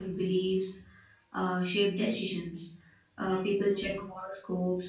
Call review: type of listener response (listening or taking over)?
listening